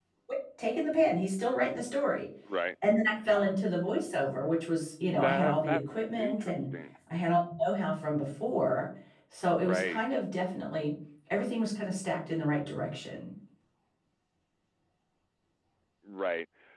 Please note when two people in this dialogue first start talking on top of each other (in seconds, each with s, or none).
5.1 s